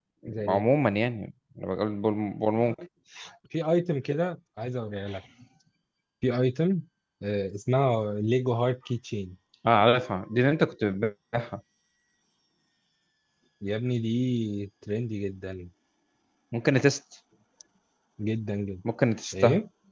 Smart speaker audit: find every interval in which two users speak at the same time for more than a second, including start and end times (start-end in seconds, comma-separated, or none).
none